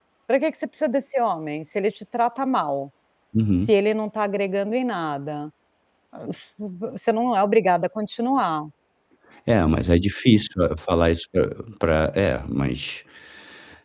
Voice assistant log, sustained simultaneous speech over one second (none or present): none